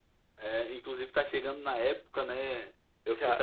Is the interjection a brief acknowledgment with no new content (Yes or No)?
Yes